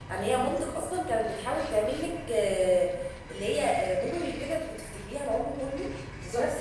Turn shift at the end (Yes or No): Yes